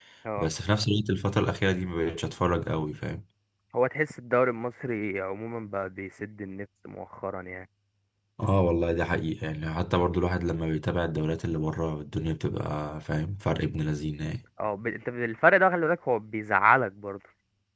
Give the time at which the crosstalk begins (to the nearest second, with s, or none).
none